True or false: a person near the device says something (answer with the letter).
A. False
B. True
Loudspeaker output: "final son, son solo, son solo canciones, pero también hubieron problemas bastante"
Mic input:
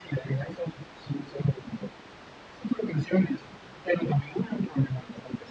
A